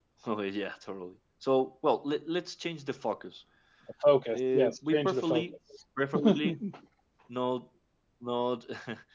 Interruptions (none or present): present